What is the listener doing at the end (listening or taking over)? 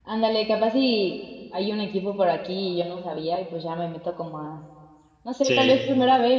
listening